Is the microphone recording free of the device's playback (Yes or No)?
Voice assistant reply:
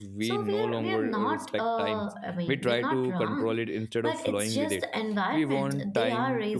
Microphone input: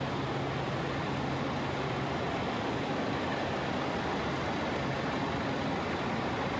Yes